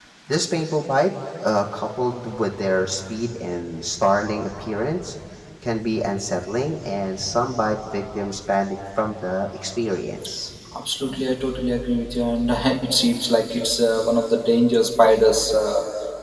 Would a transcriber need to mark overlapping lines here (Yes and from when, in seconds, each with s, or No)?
No